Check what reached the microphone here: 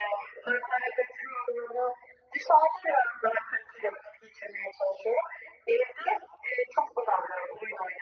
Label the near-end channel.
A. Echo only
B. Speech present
A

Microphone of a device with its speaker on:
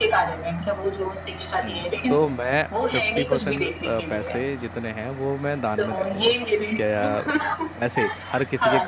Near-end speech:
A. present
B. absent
A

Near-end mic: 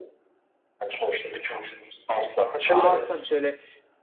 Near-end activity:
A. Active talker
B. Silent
A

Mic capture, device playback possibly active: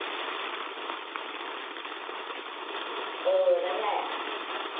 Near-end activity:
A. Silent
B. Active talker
B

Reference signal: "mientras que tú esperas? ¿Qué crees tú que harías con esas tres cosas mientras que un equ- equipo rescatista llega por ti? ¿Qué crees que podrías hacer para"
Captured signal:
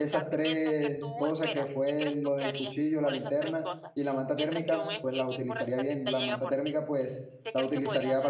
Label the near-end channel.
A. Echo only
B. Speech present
B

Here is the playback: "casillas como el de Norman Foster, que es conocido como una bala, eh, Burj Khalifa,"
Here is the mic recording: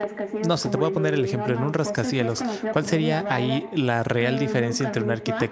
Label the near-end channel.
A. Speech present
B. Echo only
A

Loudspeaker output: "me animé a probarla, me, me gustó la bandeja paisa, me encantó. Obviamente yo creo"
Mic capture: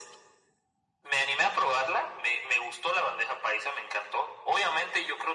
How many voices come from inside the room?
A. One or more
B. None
B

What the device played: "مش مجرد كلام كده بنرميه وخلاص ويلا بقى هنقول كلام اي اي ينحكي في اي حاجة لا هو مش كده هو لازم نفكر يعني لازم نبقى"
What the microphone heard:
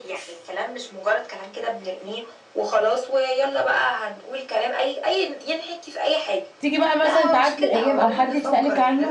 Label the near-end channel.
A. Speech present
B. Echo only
A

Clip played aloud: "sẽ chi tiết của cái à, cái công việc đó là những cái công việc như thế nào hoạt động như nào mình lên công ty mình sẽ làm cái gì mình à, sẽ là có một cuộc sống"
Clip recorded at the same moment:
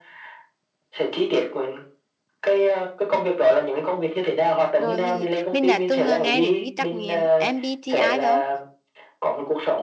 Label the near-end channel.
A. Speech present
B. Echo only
A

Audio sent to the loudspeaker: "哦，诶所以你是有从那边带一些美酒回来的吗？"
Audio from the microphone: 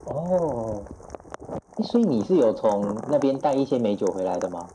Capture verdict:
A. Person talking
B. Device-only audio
B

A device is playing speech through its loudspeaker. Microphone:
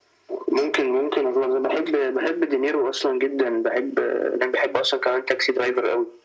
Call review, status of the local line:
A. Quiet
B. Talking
A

